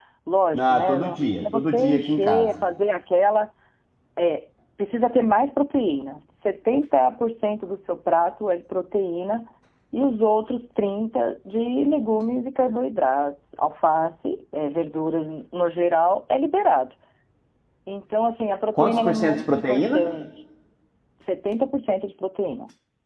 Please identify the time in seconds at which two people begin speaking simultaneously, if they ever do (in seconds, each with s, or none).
0.6 s